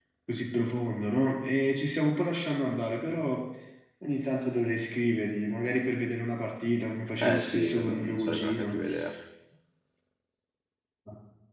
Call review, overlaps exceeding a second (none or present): present